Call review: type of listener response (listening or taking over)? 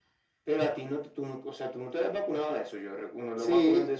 taking over